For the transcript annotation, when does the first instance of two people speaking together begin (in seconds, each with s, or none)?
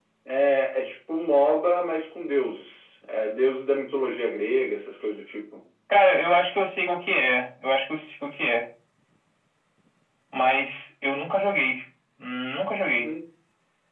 none